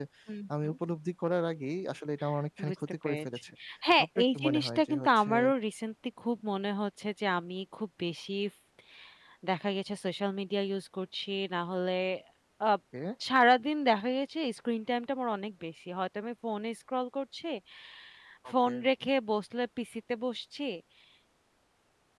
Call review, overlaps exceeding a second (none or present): present